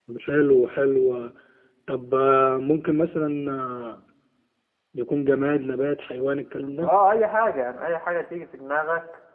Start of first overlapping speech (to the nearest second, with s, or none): none